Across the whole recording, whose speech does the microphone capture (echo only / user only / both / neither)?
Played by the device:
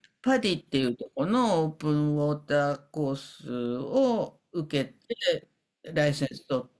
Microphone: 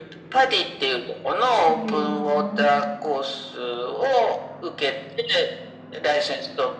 both